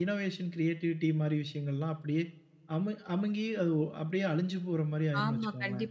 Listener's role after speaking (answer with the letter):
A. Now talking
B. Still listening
A